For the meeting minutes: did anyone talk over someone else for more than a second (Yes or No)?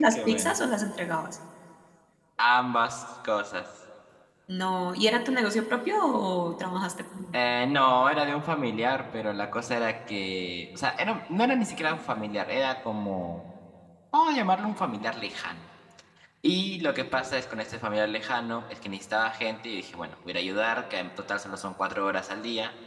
No